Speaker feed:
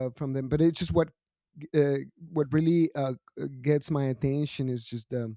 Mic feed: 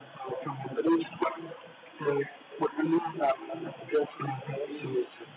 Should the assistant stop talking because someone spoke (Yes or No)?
No